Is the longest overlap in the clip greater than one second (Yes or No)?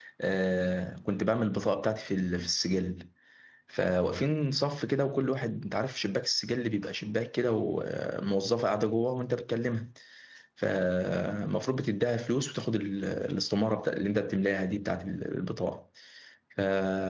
No